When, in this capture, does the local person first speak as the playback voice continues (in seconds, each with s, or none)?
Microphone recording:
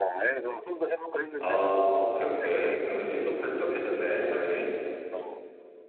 1.4 s